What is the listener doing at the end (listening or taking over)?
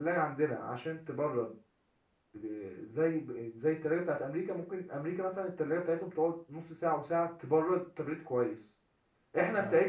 listening